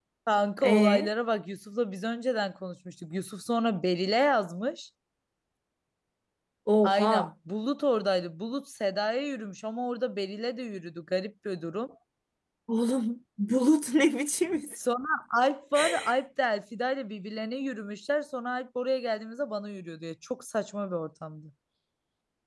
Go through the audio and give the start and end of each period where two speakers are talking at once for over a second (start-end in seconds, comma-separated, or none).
none